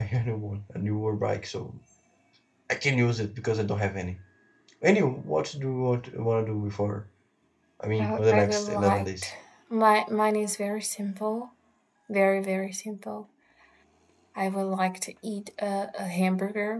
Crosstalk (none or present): present